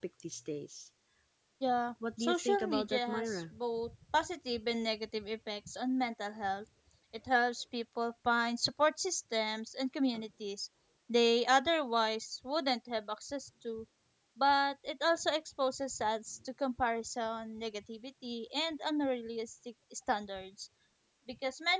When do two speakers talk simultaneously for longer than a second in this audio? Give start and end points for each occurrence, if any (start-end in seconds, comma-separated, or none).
2.1-3.4